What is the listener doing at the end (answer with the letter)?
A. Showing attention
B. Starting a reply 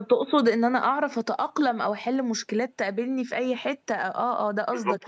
B